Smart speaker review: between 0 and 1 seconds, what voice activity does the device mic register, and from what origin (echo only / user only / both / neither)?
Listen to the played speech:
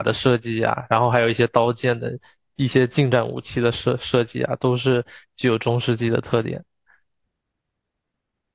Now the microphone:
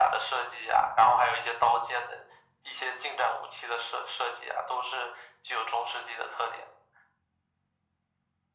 echo only